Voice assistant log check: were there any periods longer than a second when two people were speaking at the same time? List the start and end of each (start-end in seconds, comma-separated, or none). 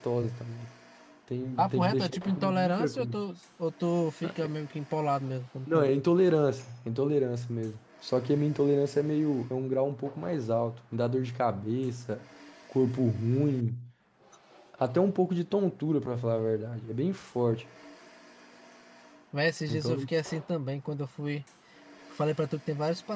1.6-3.1